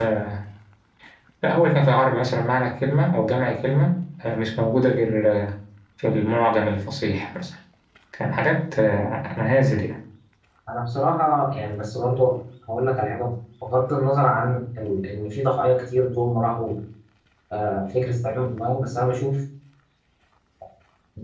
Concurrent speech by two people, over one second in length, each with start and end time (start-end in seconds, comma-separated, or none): none